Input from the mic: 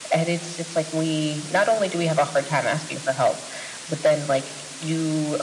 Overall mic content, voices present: echo only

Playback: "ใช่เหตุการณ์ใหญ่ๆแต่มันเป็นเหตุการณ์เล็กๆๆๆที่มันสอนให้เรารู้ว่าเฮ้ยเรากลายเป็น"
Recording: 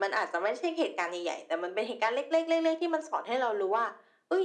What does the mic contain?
echo only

